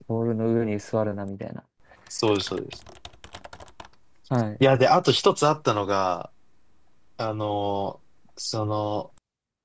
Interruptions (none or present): none